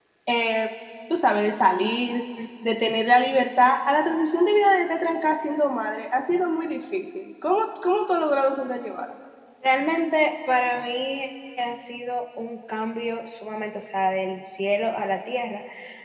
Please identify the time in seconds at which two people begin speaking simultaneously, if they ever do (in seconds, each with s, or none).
none